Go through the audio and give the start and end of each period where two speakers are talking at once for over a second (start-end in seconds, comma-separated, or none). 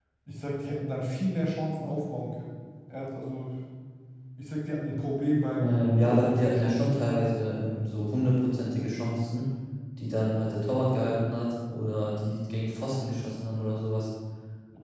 5.5-7.0